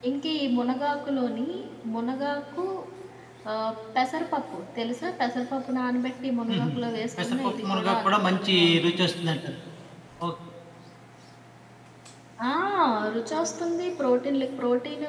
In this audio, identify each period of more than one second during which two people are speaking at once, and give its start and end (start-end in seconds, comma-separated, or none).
7.2-9.1